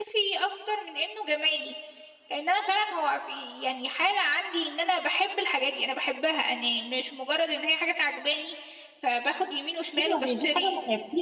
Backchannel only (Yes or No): No